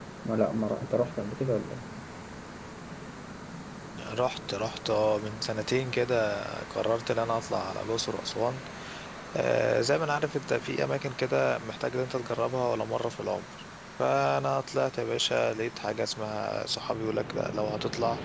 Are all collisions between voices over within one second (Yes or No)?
Yes